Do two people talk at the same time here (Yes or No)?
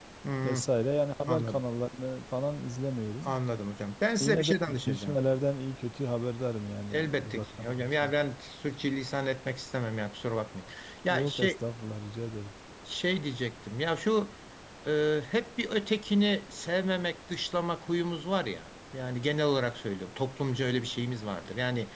Yes